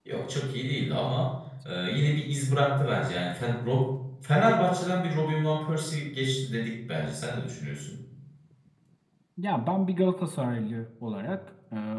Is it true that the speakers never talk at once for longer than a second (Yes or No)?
Yes